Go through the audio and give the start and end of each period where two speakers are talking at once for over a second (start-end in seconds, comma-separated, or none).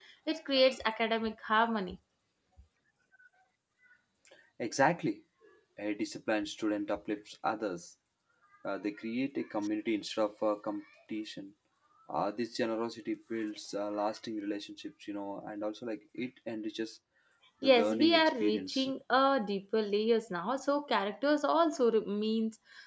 17.6-18.9